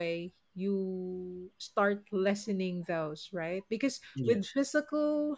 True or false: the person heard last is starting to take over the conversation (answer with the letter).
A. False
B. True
A